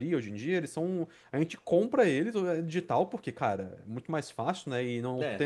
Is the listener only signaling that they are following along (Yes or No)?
No